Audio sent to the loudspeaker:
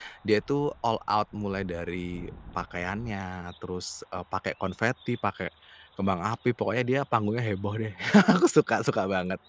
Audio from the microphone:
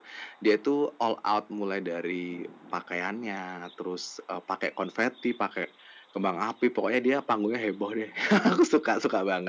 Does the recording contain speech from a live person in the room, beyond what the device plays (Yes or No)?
No